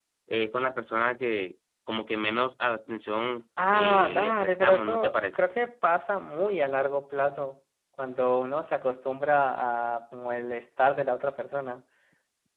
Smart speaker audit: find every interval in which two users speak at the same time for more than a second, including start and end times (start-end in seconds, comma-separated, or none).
3.7-5.5